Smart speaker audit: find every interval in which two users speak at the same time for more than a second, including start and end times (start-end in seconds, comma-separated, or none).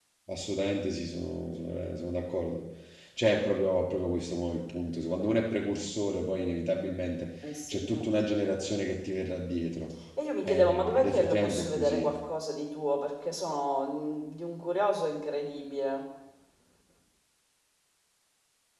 10.4-12.1